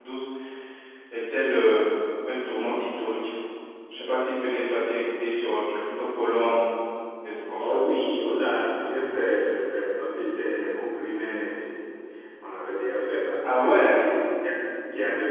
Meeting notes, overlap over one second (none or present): none